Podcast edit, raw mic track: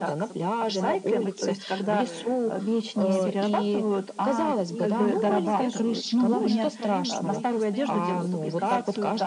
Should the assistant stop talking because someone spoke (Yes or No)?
Yes